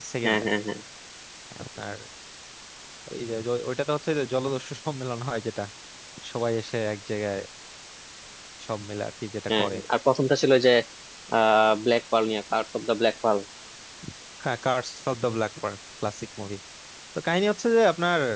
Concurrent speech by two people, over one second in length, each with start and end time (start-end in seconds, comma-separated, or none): none